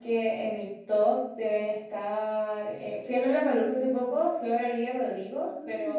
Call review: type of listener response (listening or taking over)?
listening